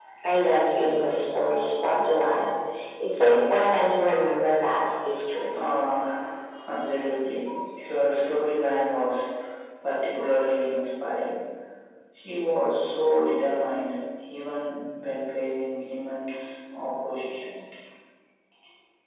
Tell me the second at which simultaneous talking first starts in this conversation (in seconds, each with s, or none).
none